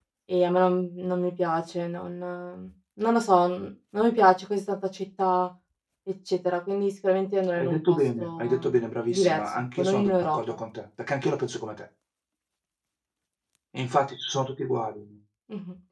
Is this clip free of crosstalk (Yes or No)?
No